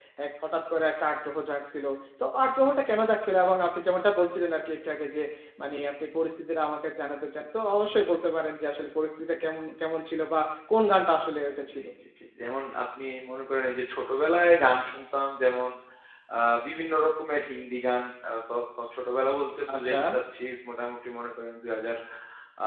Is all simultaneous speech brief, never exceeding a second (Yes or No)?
Yes